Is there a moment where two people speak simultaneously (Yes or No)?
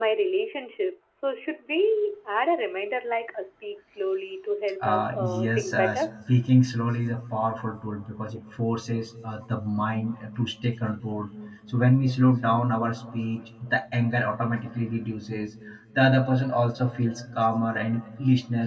Yes